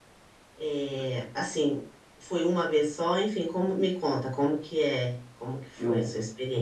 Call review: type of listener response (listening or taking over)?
taking over